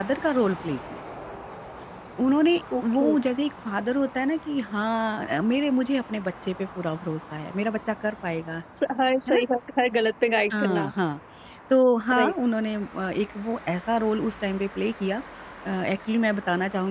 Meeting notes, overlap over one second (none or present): none